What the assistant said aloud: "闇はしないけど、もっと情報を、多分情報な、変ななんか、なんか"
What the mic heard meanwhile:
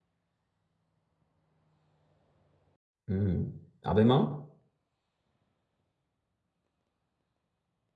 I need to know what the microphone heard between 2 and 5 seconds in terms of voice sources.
user only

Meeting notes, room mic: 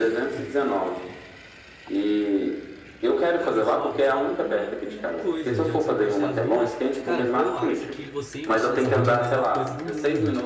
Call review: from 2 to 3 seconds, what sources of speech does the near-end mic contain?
echo only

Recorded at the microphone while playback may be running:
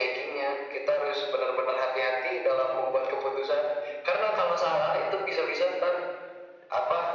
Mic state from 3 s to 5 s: echo only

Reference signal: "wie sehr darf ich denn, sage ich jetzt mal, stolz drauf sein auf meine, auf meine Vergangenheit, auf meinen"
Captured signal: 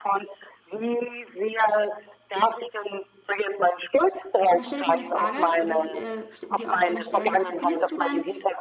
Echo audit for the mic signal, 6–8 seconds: both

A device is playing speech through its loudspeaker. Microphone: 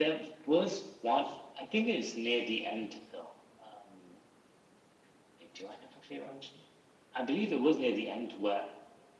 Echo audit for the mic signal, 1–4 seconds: echo only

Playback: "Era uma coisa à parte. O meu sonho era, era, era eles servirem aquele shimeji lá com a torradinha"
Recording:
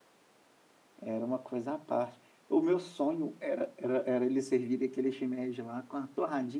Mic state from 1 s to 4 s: echo only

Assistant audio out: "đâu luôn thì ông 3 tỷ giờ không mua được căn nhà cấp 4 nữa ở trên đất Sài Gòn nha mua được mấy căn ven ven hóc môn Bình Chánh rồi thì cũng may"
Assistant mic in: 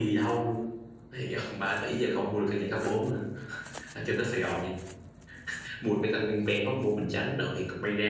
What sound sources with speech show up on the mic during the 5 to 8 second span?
echo only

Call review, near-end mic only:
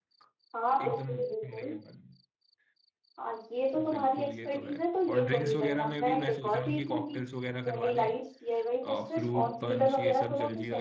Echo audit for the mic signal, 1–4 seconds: both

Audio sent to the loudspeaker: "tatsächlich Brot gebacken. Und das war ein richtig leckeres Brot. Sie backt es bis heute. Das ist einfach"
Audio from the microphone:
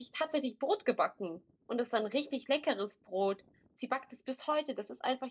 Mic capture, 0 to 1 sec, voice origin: echo only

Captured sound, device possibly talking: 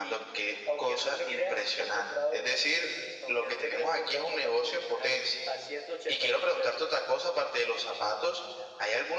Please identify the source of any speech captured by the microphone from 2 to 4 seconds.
echo only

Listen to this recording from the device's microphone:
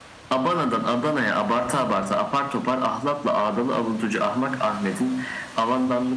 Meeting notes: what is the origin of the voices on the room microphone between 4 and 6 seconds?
echo only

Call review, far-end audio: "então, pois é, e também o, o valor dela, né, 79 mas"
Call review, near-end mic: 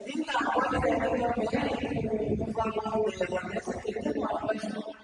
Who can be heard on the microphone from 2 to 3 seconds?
echo only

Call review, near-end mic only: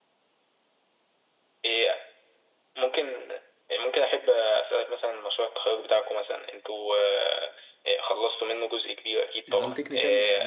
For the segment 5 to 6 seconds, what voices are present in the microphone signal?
echo only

